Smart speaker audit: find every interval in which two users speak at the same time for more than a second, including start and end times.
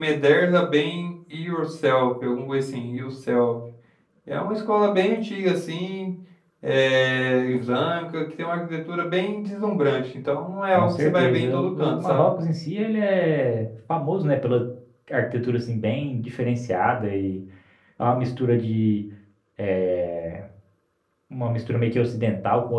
10.8-12.3

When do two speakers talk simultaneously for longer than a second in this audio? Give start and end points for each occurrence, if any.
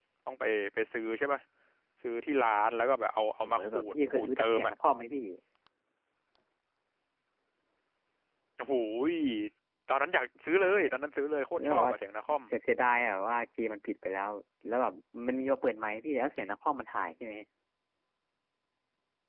3.4-4.7

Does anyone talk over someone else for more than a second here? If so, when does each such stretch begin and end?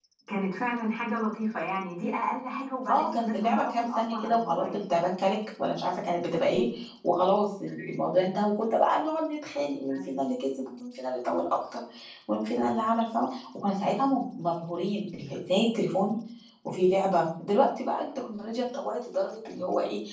2.9-4.8

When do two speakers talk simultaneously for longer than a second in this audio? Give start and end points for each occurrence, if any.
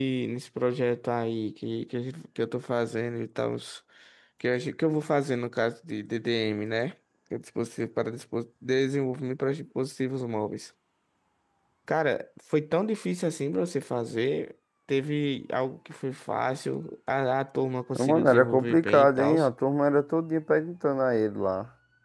18.1-19.4

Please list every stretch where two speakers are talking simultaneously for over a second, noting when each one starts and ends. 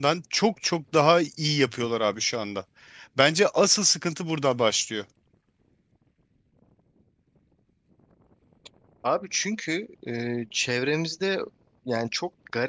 none

